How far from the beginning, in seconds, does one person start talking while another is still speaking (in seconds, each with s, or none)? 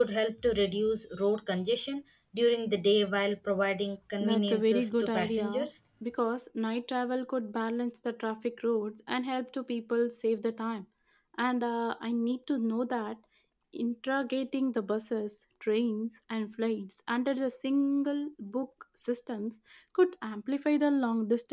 4.2 s